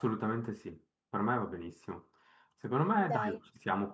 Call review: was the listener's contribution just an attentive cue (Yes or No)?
Yes